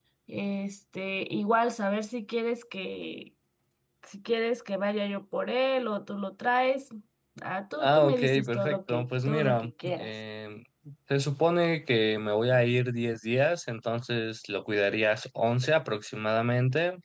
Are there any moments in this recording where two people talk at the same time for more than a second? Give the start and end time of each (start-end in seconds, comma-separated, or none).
7.8-10.1